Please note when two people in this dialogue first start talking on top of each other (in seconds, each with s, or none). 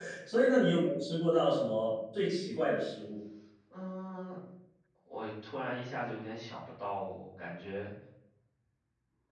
none